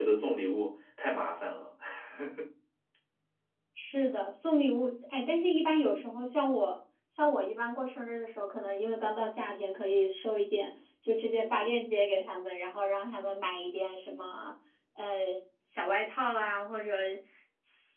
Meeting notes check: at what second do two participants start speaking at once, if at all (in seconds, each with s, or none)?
none